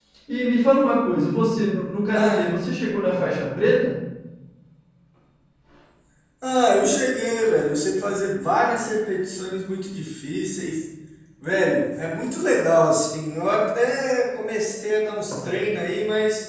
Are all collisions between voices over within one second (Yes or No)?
Yes